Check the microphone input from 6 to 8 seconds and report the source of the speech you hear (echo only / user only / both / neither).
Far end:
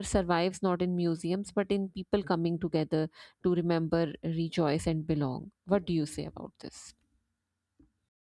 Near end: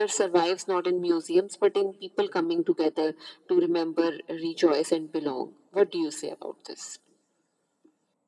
echo only